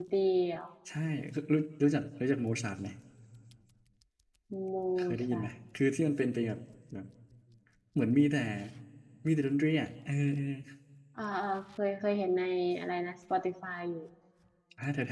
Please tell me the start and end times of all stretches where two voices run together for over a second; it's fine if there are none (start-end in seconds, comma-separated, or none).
none